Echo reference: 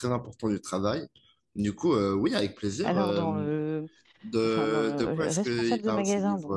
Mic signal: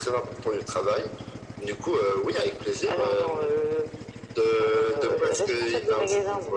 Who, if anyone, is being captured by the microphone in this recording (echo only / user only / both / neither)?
echo only